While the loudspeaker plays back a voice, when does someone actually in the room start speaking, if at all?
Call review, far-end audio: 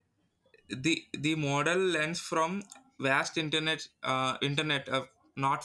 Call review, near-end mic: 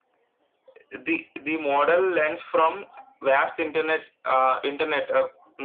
none

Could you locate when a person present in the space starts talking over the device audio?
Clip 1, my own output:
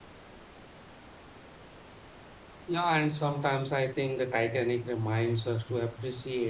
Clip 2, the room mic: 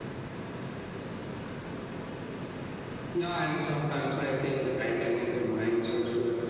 none

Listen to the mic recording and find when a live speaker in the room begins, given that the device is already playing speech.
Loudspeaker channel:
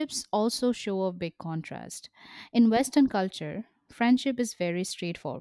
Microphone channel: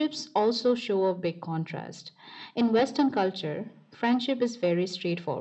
none

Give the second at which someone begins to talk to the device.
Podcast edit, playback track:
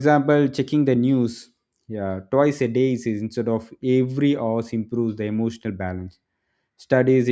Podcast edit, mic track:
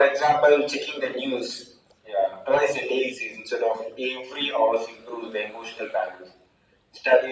none

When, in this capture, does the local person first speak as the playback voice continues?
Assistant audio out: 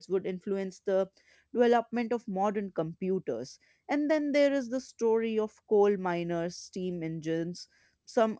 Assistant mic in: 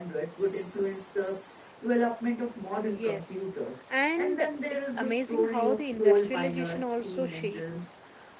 2.8 s

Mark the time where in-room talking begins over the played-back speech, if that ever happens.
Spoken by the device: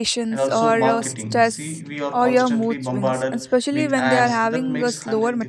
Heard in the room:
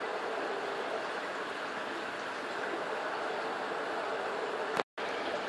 none

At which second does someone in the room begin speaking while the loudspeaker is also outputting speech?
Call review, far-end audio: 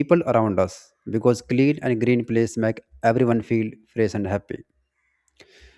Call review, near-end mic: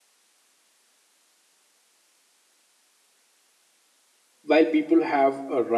4.4 s

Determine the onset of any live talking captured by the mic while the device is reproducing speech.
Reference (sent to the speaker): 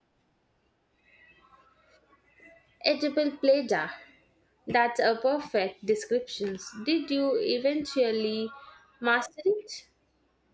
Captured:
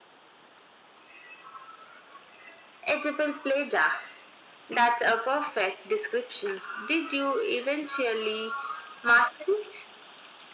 none

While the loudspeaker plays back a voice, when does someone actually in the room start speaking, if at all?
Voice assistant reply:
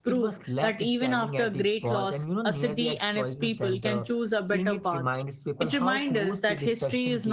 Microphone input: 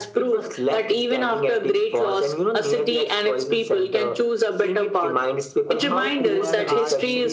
5.8 s

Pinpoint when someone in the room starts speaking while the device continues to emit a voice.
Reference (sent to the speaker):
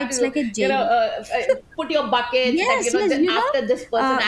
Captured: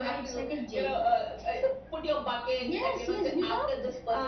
none

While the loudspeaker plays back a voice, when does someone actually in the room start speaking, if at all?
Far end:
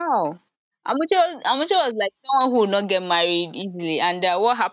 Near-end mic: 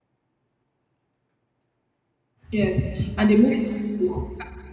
2.5 s

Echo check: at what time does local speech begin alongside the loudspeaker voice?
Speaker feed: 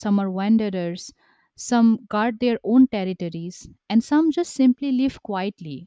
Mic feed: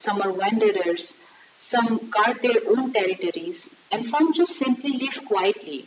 none

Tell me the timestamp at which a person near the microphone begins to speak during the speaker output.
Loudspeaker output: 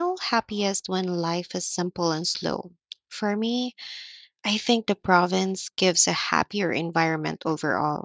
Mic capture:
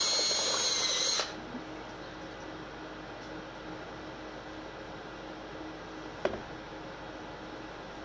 none

